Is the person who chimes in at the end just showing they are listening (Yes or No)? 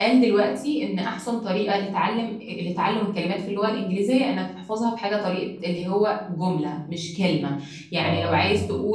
Yes